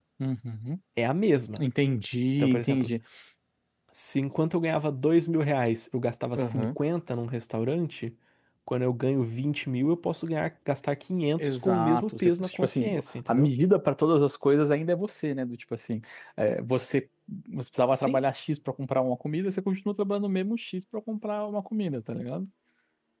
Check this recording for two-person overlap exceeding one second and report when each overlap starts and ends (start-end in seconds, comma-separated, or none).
11.4-12.9